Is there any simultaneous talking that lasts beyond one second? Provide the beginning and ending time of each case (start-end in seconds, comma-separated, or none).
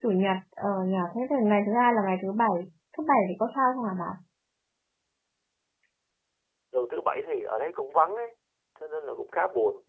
none